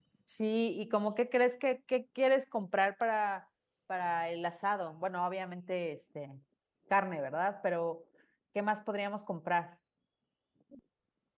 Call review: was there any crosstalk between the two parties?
No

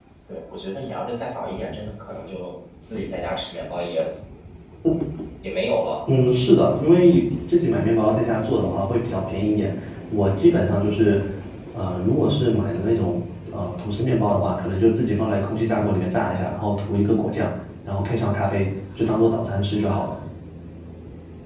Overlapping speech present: No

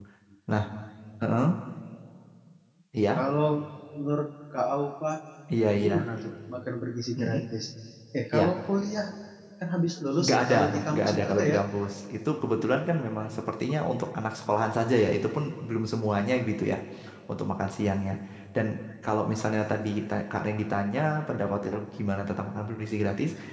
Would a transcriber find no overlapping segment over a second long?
No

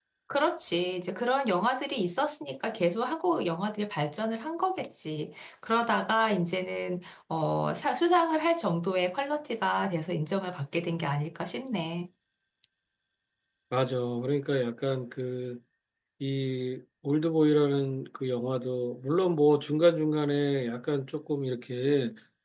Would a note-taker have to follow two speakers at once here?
No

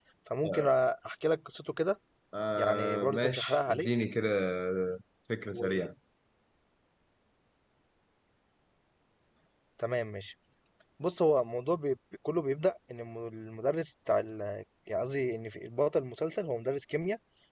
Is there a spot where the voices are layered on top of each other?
Yes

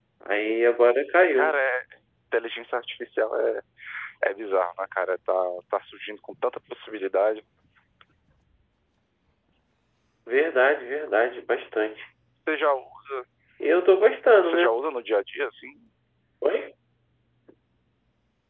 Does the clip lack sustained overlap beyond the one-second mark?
Yes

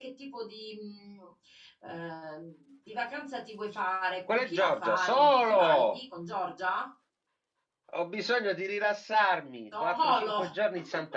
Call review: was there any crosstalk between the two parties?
Yes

